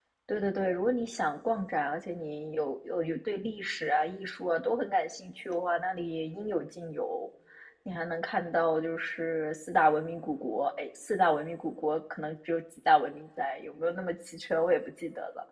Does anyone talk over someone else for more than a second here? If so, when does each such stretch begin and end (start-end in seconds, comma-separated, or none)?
none